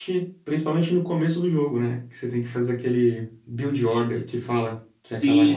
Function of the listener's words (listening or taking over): taking over